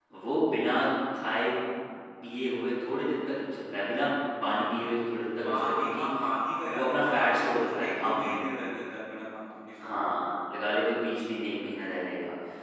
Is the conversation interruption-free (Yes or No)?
No